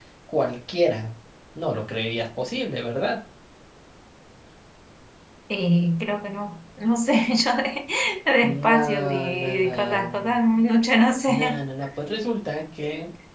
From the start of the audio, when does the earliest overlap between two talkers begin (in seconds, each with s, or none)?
8.4 s